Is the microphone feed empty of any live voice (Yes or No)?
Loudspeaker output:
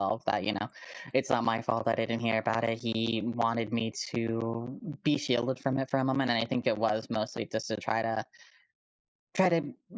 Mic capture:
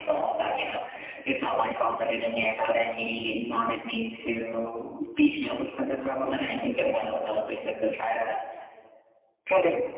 Yes